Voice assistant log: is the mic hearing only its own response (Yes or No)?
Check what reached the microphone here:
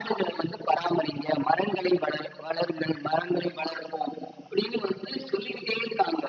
Yes